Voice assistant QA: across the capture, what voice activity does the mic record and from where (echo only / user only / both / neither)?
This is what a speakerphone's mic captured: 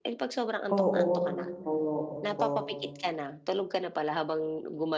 both